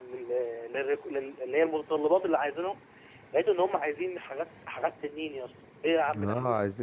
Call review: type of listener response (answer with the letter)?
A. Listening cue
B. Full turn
B